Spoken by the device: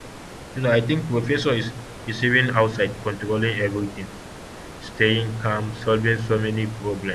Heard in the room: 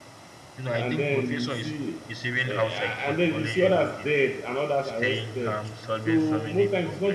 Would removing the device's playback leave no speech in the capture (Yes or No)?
No